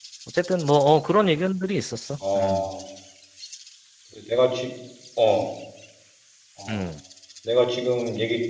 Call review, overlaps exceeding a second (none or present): none